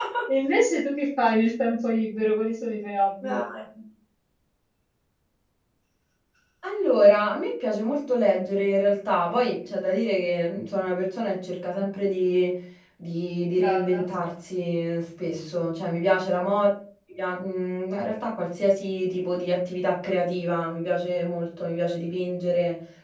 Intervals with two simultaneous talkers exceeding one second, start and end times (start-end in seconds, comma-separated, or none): none